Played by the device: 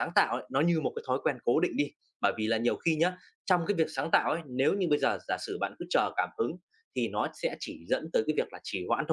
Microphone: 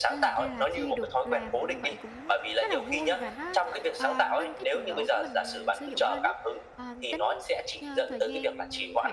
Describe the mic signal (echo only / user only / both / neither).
both